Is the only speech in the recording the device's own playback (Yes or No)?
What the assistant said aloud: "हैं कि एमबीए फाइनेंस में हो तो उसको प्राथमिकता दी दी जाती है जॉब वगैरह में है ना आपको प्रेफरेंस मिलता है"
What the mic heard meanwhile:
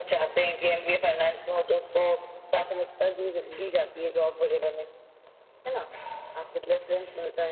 Yes